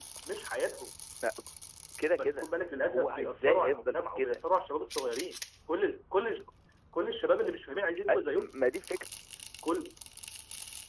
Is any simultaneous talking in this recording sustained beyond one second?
Yes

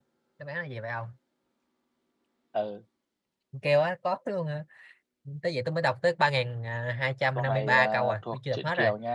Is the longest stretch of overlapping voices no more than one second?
No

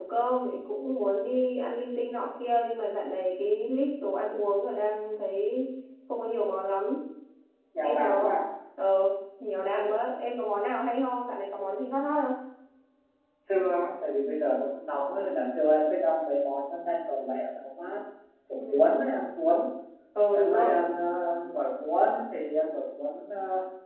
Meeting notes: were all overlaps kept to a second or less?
Yes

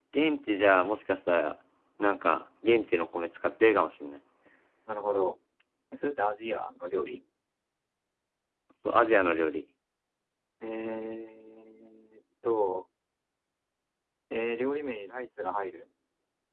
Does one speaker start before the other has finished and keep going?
No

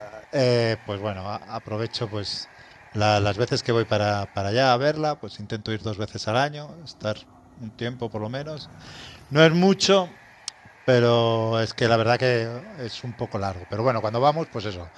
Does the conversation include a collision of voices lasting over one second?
No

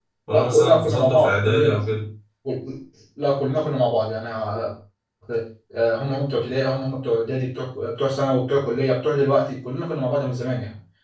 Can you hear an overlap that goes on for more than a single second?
Yes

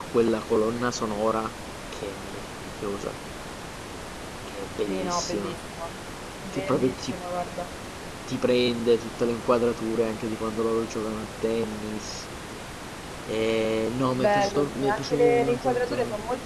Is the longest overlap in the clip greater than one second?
Yes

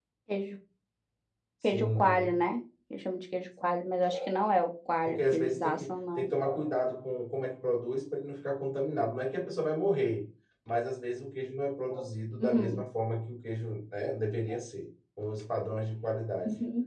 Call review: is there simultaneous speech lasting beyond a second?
Yes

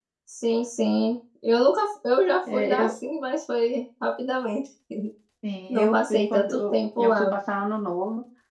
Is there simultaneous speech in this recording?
Yes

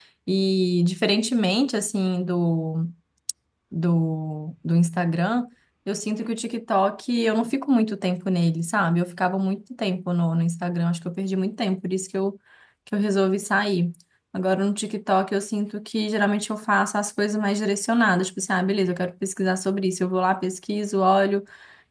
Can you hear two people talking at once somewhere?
No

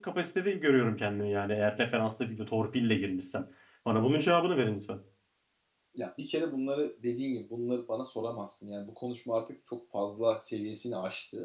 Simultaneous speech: No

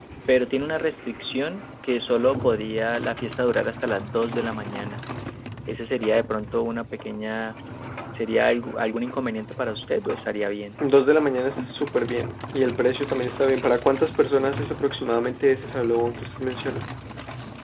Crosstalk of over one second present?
No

